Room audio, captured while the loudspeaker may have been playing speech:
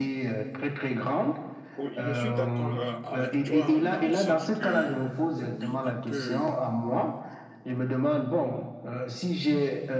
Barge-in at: 1.8 s

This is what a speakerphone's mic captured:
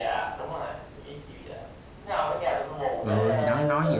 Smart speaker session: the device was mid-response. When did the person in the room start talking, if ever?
3.0 s

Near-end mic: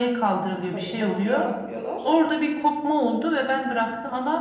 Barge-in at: 0.7 s

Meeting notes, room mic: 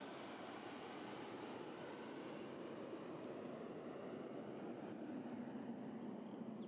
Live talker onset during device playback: none

